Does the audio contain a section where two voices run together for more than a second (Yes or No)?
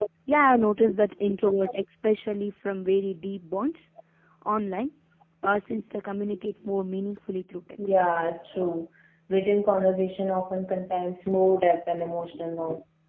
No